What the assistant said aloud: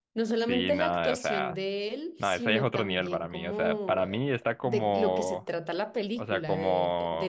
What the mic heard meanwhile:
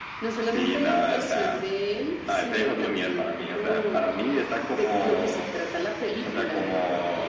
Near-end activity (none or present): none